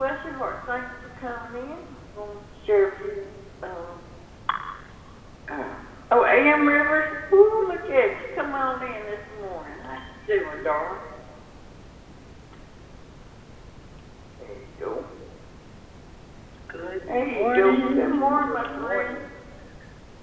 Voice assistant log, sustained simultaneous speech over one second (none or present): present